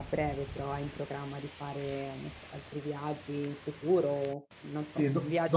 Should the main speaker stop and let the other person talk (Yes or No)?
Yes